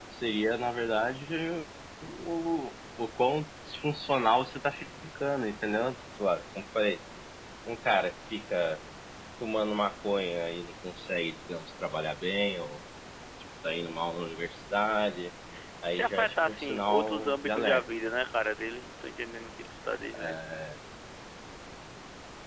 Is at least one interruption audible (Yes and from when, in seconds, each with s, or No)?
Yes, from 15.9 s